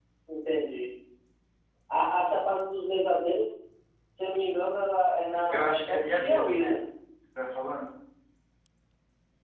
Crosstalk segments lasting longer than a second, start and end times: 5.5-6.7

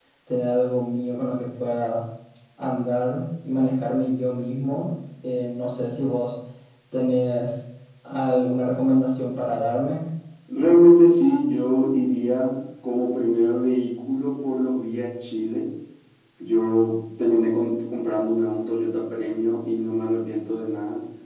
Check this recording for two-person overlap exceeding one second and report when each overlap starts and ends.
none

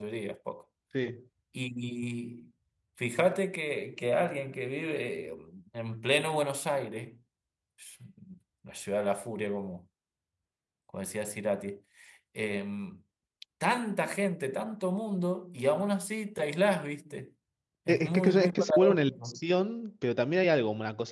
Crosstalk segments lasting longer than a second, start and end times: 17.9-19.4

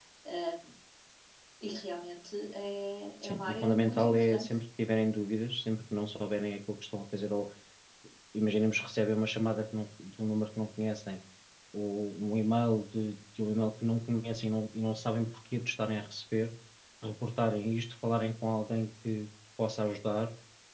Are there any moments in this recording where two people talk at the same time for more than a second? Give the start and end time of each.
3.2-4.4

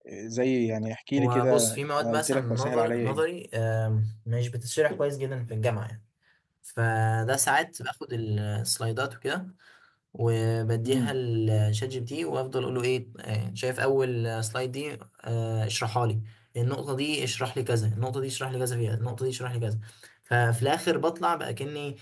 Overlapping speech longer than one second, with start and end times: 1.2-3.2

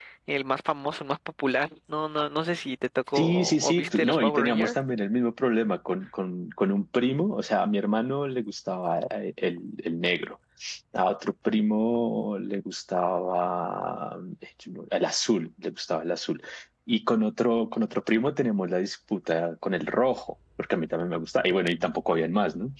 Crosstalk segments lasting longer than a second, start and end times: 3.2-4.8

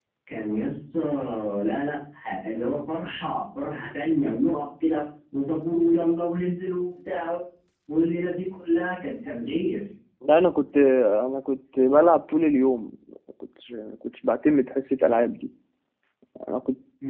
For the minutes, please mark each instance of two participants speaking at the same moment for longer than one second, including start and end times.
none

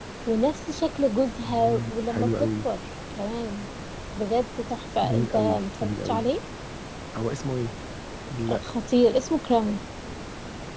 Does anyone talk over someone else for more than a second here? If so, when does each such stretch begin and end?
1.4-2.7, 5.0-6.3

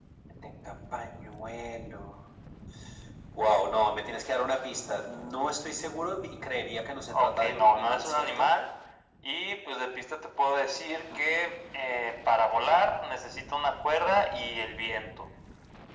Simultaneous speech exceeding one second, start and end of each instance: 7.1-8.5

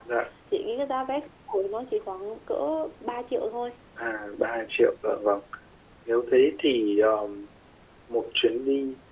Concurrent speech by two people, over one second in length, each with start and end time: none

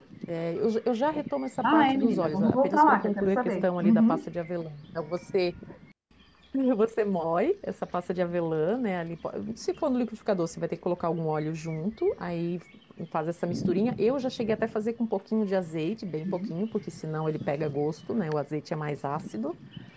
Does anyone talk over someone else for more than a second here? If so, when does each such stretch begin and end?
1.6-4.2

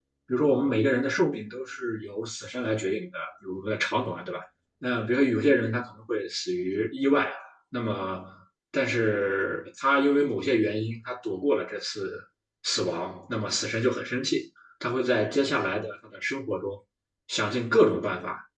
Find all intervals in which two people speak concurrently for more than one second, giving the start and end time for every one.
none

